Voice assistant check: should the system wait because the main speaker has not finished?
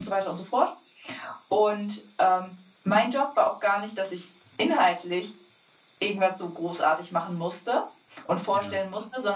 Yes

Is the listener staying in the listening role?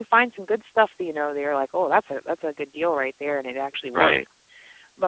Yes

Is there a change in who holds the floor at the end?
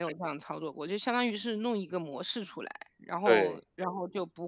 No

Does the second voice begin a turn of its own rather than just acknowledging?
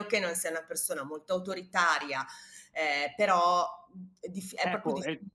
Yes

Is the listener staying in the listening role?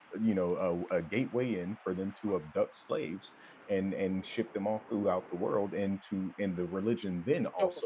Yes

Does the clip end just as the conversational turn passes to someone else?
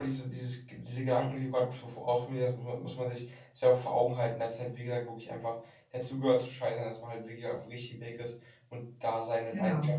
No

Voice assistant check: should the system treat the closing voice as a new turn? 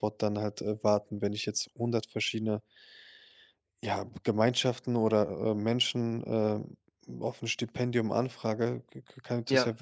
No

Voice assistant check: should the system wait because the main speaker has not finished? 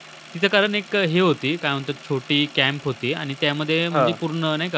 Yes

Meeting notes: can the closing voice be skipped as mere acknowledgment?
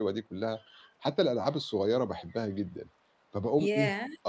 Yes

